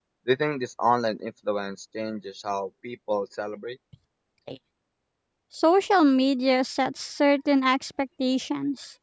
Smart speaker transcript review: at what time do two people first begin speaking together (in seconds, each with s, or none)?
none